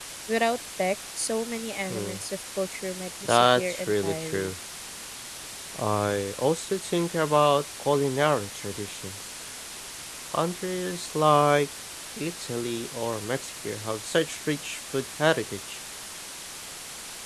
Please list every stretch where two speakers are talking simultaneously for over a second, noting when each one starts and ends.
3.2-4.5

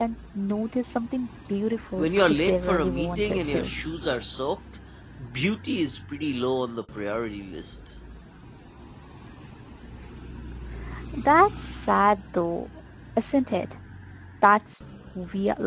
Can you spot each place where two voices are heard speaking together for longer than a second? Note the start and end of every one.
2.0-3.7

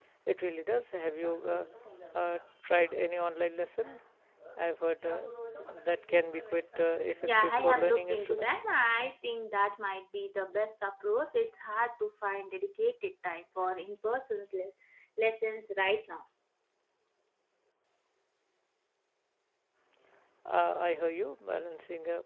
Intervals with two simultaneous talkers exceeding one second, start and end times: 7.2-8.6

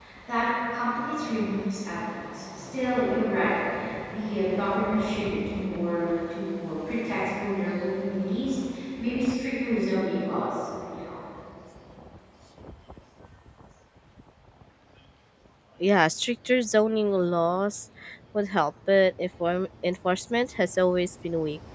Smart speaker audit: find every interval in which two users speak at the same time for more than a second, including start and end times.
none

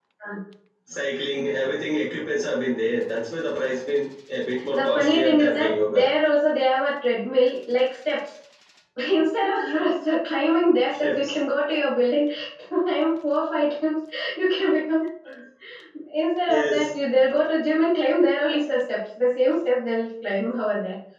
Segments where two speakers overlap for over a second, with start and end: 4.8-6.0

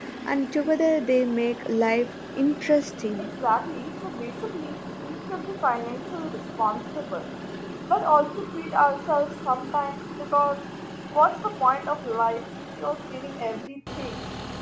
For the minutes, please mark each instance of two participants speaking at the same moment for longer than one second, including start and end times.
none

